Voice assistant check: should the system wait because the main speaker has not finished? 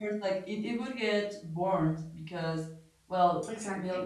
Yes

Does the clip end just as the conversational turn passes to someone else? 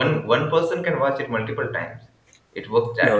Yes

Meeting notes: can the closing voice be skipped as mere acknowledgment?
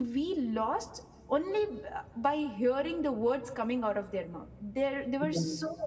Yes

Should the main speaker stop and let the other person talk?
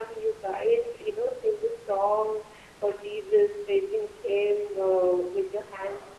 No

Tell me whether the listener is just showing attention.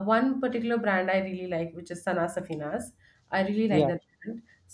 Yes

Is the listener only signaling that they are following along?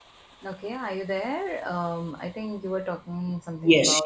No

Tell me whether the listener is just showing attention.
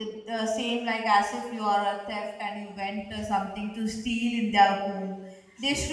Yes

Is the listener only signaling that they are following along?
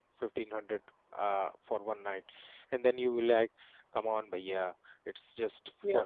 Yes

